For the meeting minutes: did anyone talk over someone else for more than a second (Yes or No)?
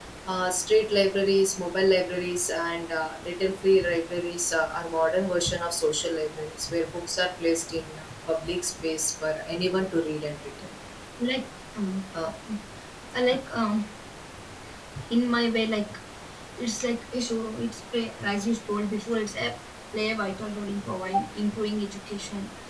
No